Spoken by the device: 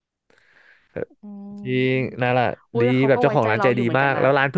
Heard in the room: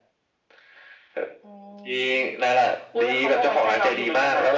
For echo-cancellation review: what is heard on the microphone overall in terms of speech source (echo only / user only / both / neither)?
echo only